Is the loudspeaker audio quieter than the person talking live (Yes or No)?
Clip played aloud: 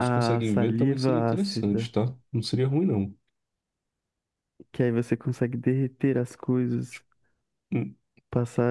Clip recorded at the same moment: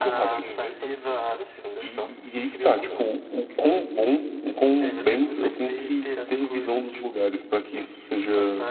Yes